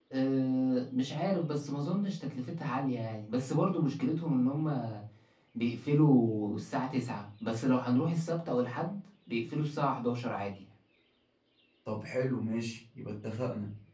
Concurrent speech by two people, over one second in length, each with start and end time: none

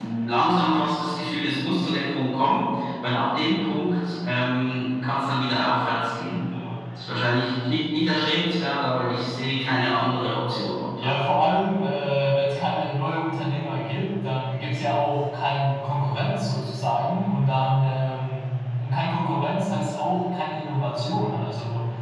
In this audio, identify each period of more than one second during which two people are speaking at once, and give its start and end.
none

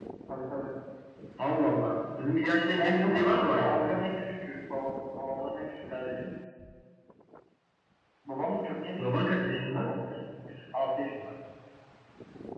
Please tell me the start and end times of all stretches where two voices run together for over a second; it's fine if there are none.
2.7-4.0

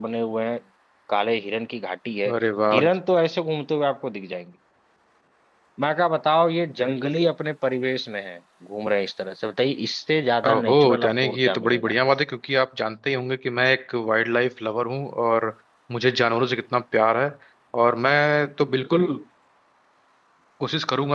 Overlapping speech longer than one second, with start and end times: 10.5-11.9

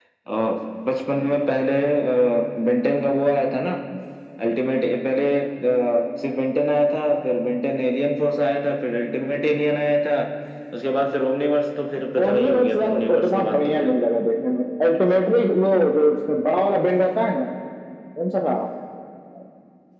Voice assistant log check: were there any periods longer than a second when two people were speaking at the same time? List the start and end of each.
12.2-13.9

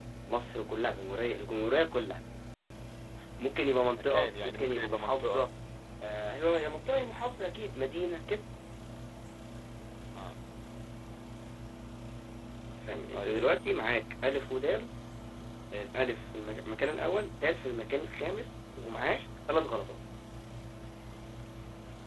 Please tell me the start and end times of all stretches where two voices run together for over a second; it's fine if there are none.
4.0-5.5

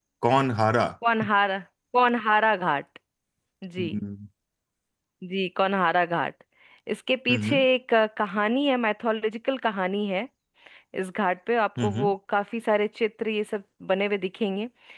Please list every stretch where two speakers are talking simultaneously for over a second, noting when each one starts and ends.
none

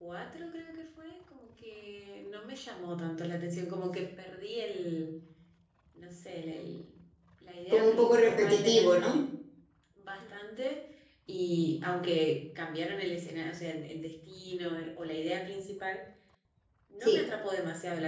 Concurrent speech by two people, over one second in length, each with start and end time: 7.7-9.1

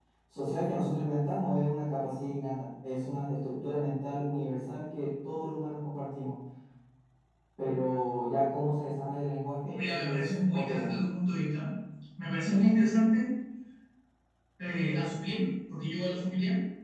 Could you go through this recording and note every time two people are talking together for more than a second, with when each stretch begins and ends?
9.6-11.0

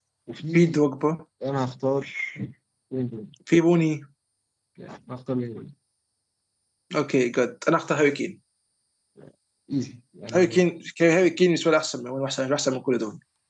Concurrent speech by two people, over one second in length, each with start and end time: none

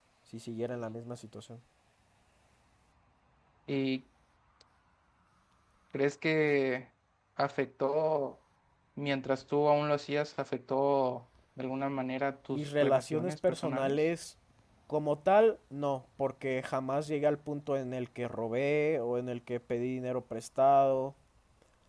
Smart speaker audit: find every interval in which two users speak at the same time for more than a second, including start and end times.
12.5-14.0

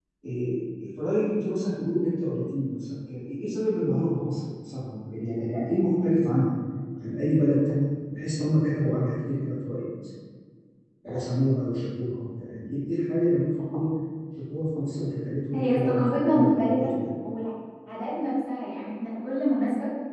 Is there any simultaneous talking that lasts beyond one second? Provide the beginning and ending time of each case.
15.5-16.9

